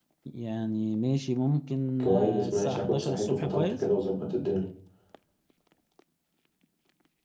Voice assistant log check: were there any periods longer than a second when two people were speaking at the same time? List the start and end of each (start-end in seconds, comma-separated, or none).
2.0-3.8